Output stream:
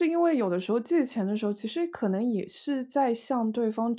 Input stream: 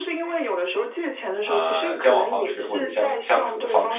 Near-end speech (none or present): present